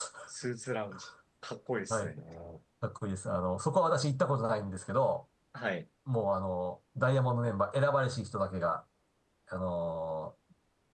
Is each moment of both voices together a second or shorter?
Yes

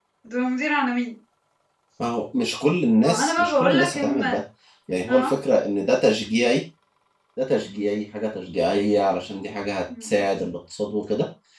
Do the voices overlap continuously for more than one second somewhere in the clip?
Yes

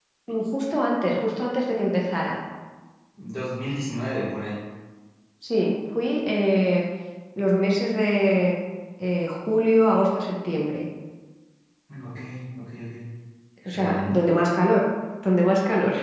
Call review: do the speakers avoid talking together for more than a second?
Yes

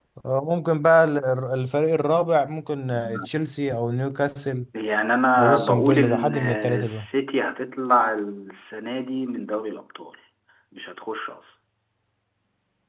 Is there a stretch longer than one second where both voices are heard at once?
Yes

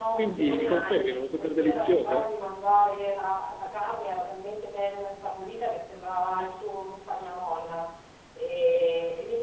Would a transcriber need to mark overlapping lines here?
Yes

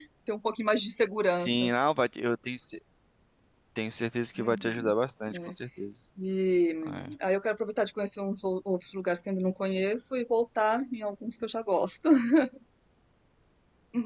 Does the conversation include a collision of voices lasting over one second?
No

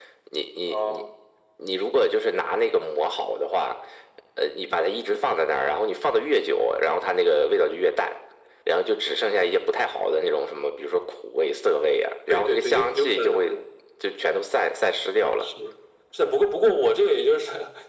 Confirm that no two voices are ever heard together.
No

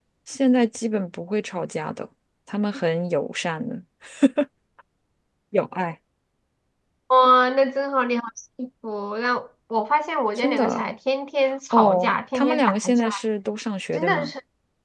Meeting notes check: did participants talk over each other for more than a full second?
Yes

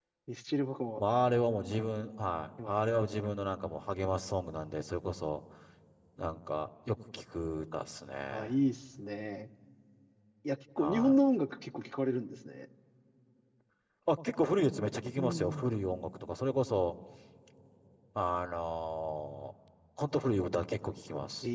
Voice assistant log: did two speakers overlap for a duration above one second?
No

